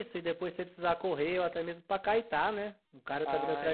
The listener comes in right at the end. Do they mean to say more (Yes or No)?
Yes